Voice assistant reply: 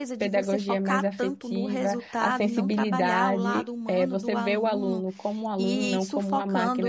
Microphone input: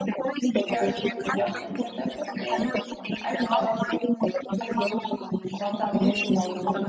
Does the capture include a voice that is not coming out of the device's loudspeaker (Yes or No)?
Yes